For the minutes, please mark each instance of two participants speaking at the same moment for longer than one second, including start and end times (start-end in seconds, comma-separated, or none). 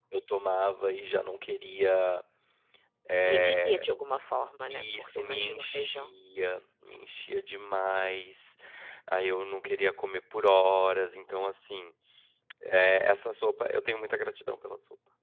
4.7-6.1